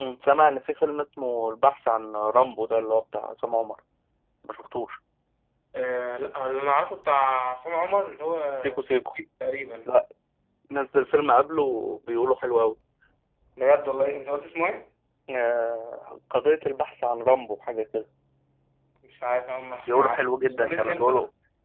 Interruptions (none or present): present